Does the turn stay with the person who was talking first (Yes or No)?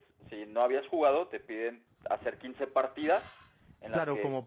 No